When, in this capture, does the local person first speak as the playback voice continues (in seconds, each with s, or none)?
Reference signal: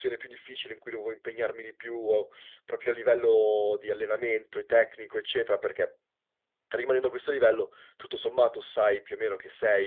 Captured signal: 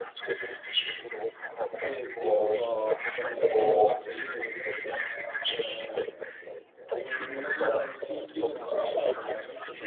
1.7 s